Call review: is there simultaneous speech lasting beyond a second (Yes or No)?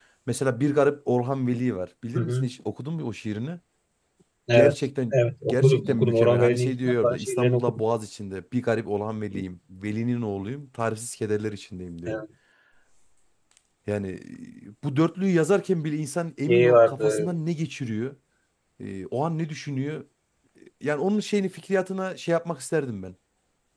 Yes